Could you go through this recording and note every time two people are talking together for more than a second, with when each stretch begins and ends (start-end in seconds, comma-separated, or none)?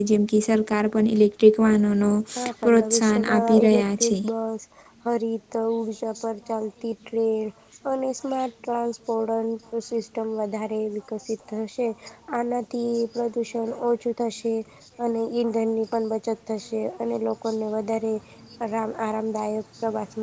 2.6-4.2